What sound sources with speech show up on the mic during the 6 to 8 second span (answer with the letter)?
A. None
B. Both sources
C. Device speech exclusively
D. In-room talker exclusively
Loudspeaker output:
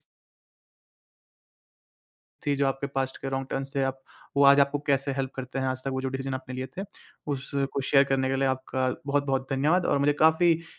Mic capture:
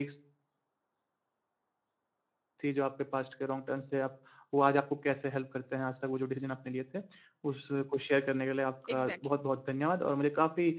C